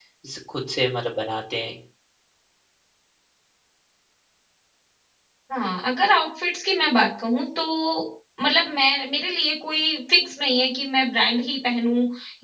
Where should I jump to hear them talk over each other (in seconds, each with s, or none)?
none